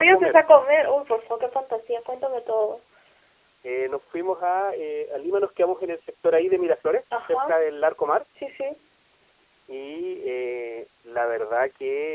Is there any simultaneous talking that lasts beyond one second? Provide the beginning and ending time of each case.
none

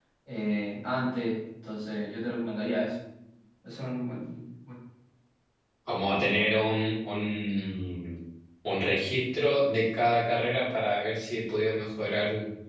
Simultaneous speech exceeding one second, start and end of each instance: none

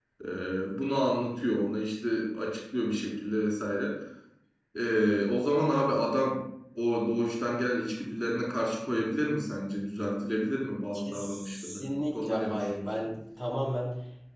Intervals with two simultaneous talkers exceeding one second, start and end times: 11.0-13.1

